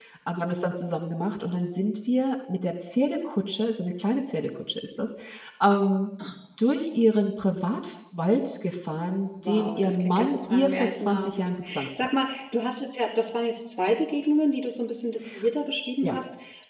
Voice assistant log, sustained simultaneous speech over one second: present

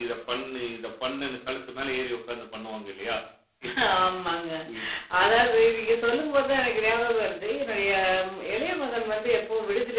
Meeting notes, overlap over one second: none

